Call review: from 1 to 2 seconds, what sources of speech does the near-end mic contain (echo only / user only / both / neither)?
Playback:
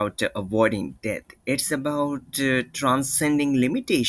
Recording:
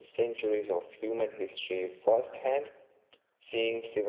user only